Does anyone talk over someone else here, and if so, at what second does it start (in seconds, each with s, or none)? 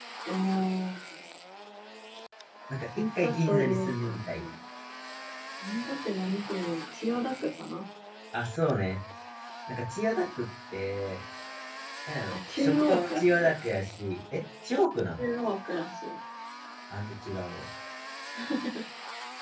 3.2 s